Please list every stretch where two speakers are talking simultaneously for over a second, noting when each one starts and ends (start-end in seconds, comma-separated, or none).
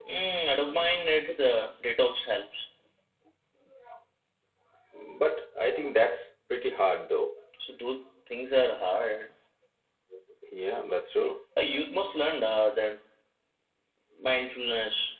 none